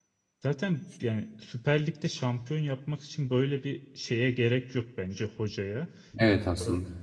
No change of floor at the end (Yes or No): Yes